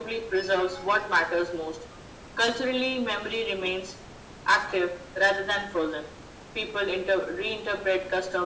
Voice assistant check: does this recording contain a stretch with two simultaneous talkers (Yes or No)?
No